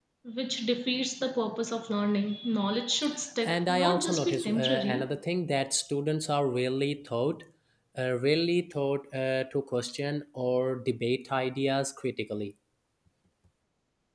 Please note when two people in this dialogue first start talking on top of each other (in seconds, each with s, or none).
3.4 s